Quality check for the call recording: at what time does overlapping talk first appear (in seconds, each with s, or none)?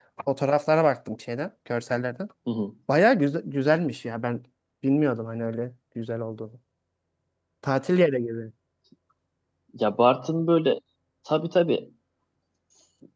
none